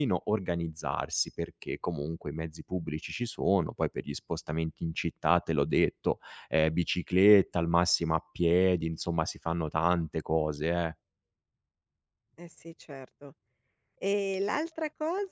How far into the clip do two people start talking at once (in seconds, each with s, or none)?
none